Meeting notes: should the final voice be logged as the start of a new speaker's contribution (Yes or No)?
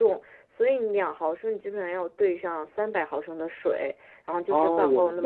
Yes